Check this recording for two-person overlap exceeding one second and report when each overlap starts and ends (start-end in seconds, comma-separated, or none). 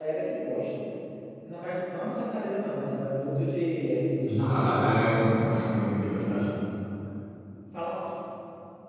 4.4-6.5